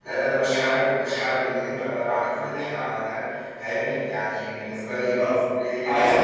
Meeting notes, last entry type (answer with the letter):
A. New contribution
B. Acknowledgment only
A